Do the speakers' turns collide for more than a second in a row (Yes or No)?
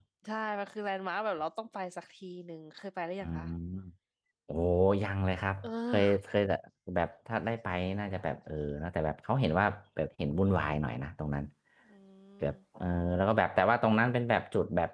No